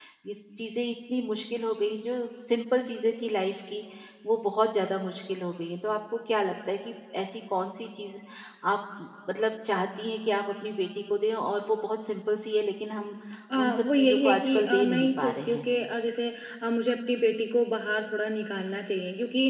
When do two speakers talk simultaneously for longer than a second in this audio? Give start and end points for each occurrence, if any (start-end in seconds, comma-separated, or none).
13.6-15.6